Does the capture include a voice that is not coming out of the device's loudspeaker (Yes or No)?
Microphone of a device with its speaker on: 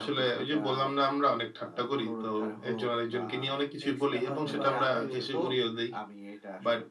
Yes